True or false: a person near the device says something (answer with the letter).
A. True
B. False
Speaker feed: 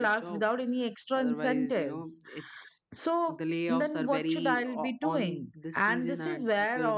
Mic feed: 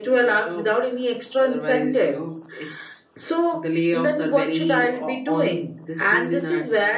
B